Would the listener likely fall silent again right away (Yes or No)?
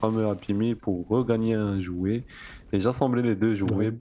Yes